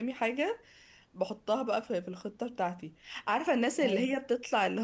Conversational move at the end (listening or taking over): listening